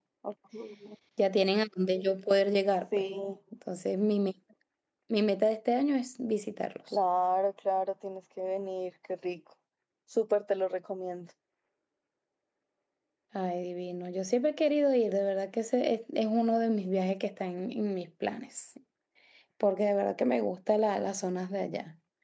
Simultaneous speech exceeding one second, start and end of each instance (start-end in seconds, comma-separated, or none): none